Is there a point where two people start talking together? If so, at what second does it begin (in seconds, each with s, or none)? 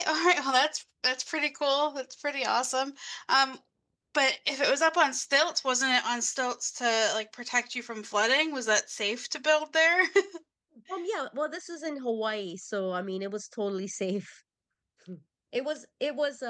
none